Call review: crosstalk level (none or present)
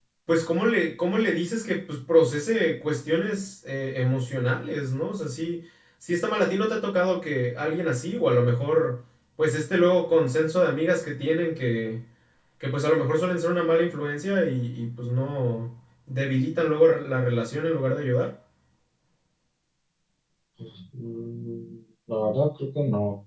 none